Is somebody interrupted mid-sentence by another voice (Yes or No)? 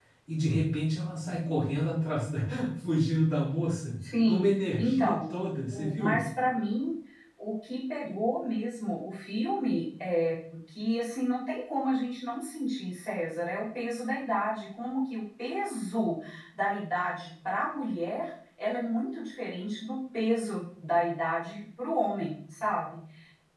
Yes